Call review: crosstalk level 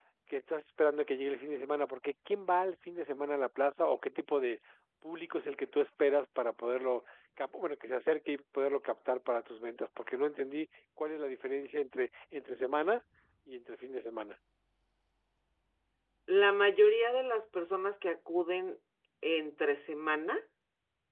none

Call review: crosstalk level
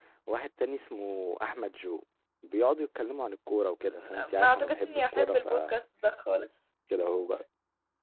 present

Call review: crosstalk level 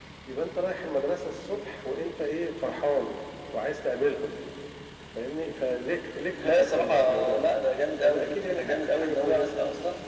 present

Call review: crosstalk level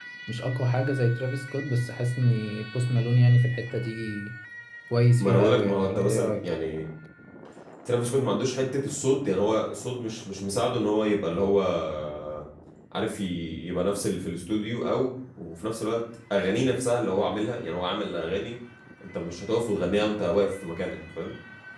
present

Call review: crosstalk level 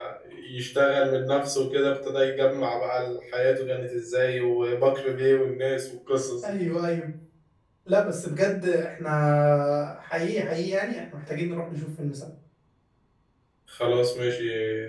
none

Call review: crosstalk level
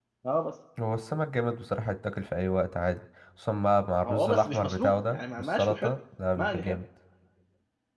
present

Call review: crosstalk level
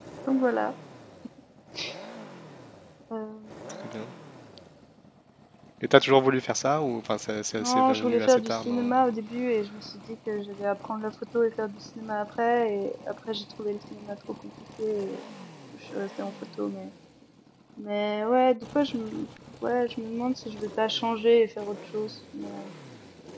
present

